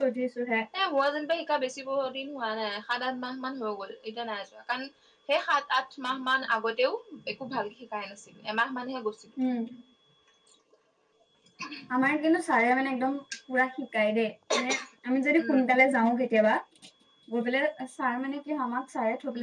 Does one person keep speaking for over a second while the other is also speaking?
No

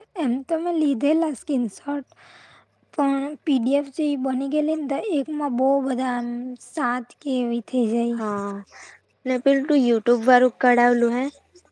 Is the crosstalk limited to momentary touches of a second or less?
Yes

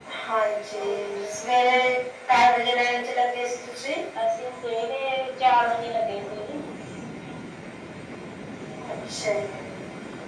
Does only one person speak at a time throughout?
Yes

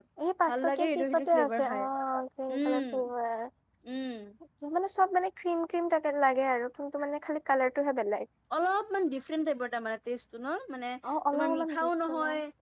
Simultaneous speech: Yes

